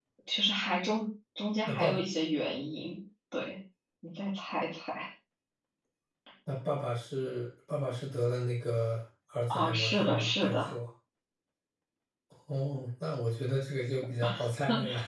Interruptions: present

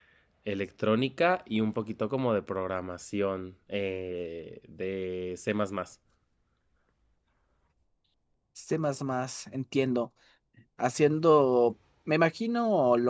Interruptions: none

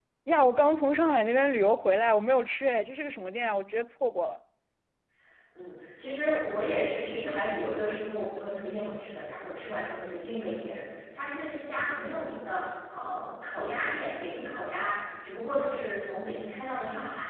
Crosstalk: none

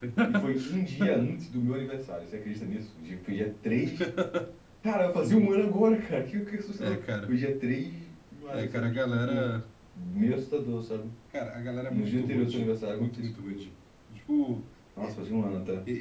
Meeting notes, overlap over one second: present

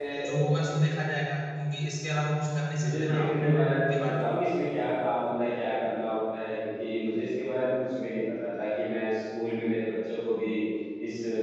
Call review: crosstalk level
present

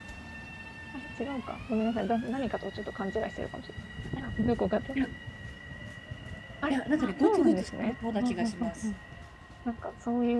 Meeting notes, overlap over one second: present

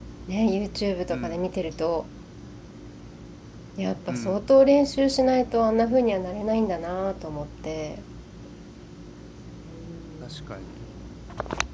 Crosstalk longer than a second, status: none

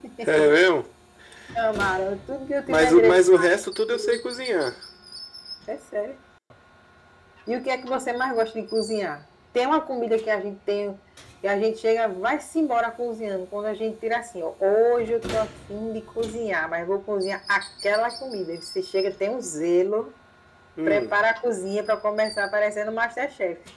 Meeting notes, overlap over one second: present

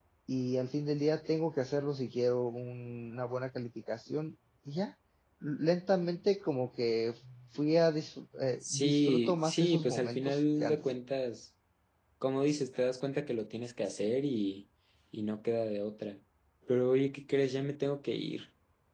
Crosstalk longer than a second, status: present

